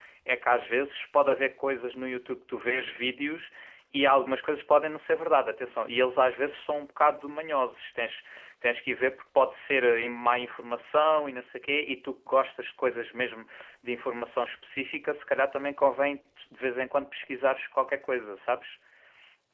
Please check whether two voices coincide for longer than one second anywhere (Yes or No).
No